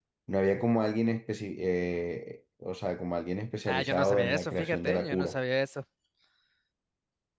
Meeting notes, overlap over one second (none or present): present